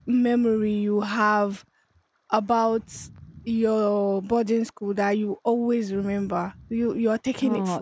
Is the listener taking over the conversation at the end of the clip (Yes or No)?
Yes